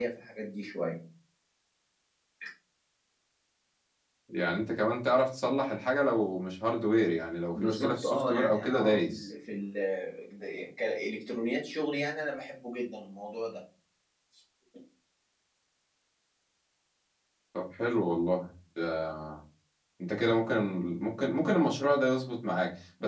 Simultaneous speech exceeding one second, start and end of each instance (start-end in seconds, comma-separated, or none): 7.5-9.3